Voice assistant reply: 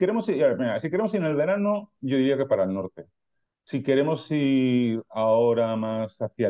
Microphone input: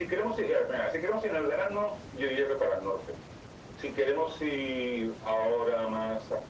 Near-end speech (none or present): none